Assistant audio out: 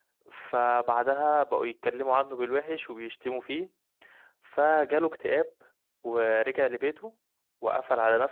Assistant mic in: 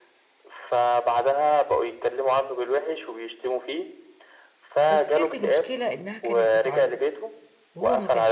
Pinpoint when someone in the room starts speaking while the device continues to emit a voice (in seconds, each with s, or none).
4.9 s